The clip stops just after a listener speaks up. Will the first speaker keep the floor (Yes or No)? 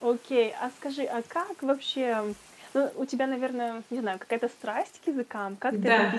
No